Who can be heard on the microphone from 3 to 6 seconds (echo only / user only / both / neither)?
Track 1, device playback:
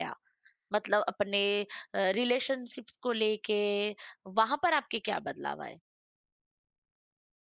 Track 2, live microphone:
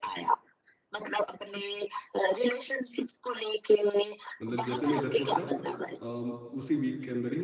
both